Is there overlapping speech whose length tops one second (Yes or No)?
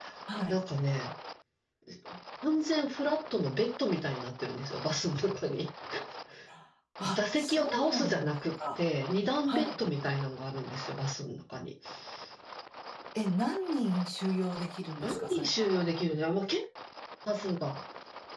Yes